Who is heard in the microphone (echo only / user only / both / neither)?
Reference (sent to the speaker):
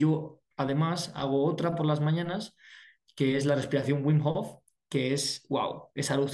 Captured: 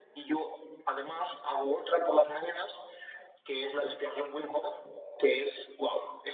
echo only